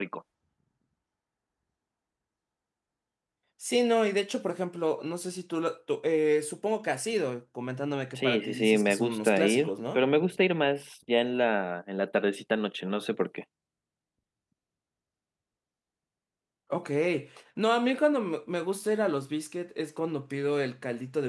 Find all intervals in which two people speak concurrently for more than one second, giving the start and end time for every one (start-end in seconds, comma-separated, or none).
8.2-10.0